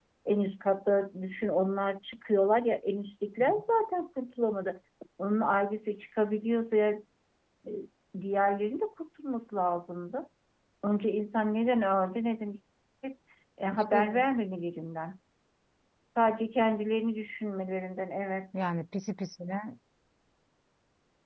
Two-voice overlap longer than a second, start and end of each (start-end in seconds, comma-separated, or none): none